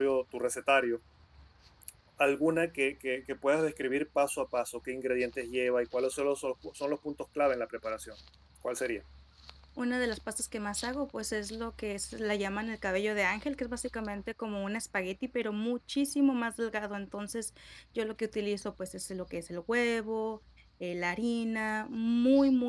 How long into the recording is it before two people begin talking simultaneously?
none

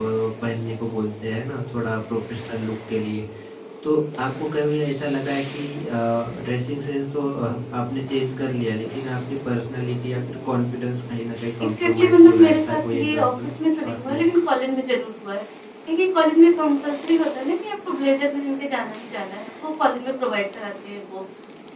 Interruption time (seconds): 11.8 s

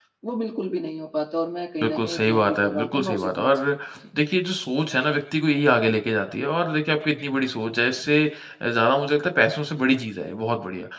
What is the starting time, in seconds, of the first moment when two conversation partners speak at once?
1.8 s

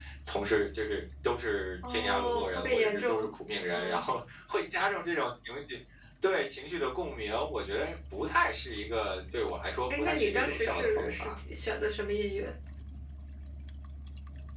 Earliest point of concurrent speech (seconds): 1.9 s

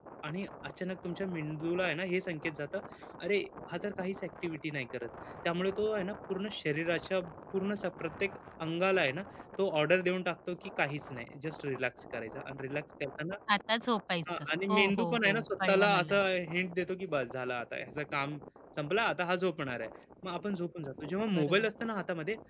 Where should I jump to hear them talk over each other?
14.3 s

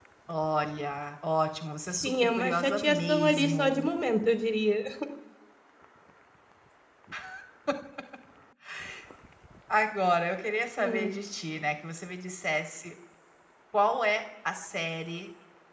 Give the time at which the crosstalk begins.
2.0 s

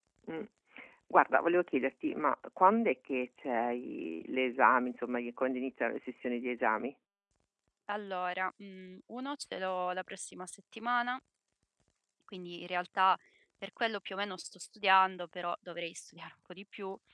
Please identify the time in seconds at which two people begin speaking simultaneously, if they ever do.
none

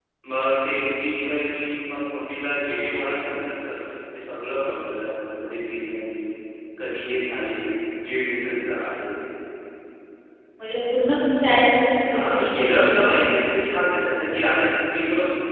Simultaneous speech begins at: 12.1 s

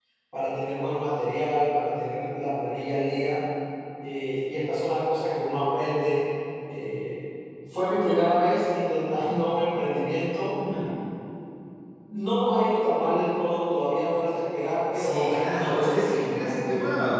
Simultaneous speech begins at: 14.9 s

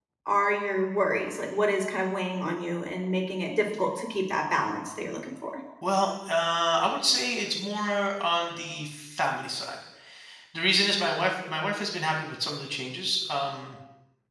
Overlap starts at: none

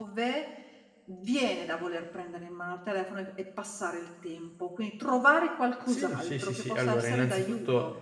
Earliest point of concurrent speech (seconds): 5.9 s

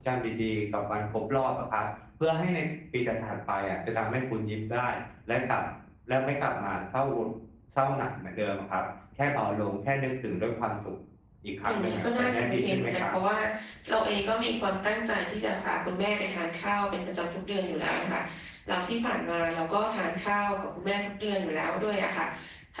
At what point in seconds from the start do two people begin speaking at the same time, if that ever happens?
11.6 s

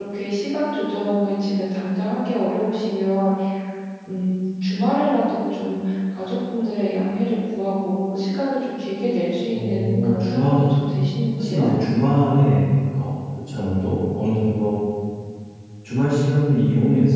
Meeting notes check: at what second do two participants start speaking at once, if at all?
9.5 s

